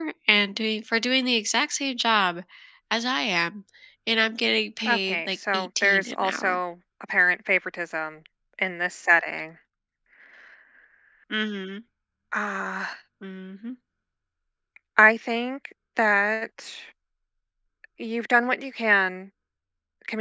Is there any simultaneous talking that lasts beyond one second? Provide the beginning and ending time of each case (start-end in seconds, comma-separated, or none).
4.9-6.6